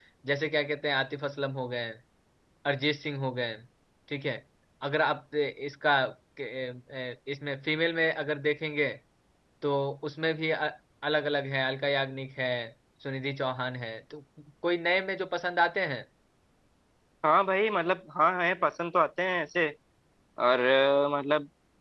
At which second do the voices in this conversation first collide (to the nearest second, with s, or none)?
none